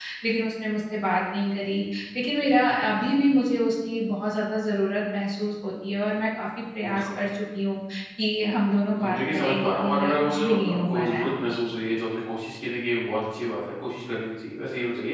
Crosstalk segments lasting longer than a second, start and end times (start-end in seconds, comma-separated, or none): 9.0-11.3